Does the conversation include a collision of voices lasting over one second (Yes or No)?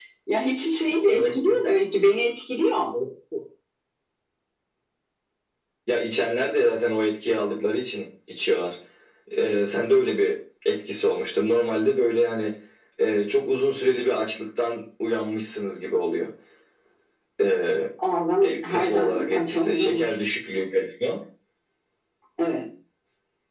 Yes